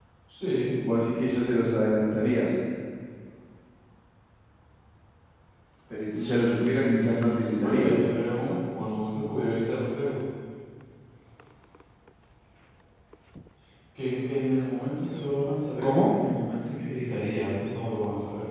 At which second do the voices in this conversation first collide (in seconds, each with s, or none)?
6.1 s